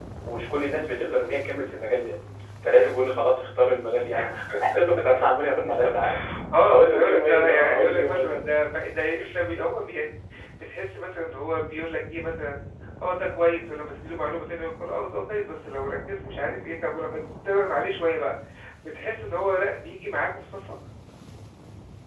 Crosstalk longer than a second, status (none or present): present